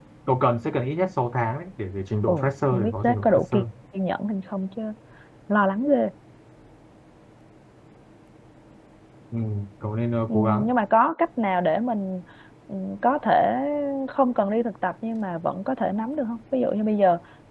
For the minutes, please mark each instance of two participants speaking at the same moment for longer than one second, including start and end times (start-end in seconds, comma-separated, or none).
2.3-3.6